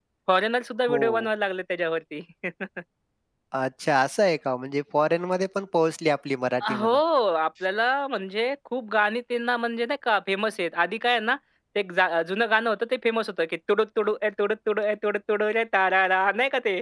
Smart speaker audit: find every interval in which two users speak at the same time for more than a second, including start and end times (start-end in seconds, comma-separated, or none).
none